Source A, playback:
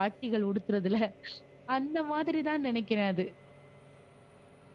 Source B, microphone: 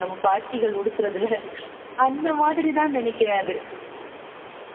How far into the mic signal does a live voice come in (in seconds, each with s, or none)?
none